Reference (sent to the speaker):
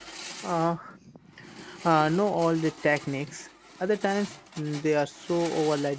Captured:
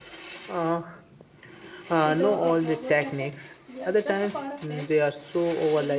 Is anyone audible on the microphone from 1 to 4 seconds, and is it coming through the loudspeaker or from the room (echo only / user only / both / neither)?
both